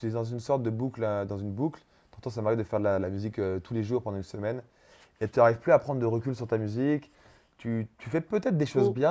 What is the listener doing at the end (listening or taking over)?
listening